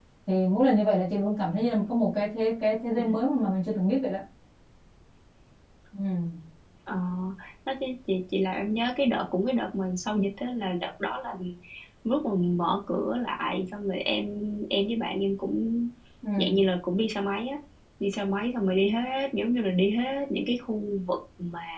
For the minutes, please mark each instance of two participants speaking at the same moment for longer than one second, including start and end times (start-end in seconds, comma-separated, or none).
none